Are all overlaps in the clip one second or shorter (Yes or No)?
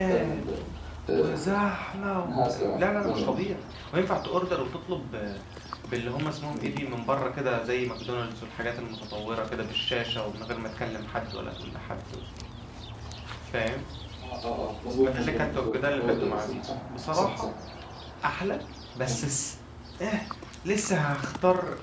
No